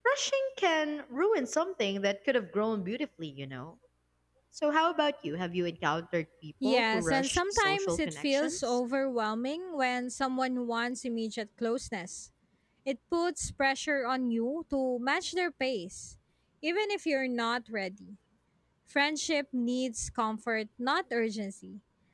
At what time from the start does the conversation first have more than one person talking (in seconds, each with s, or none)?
6.6 s